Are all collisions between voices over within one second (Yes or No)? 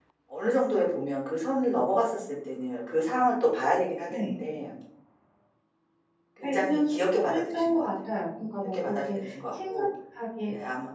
No